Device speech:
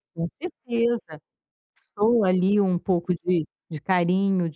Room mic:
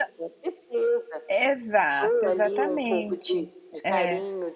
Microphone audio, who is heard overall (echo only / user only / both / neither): both